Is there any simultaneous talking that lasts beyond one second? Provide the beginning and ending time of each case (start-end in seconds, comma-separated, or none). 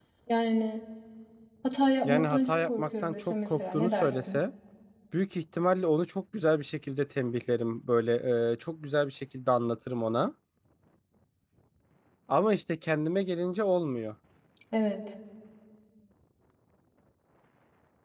2.0-4.4